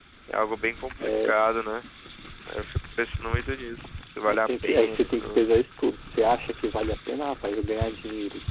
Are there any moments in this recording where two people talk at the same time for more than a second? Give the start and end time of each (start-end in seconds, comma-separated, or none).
4.3-5.5